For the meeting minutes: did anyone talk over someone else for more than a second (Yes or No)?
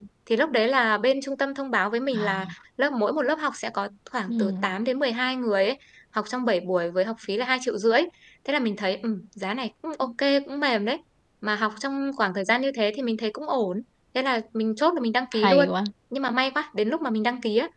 No